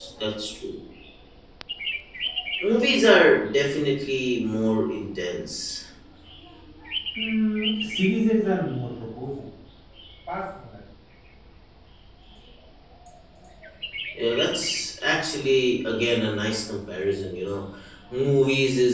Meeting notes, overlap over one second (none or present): none